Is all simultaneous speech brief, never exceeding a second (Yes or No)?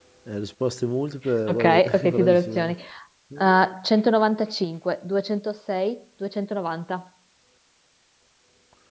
No